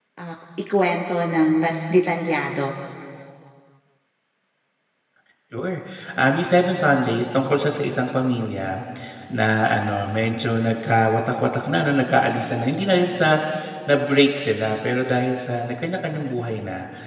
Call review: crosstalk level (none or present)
none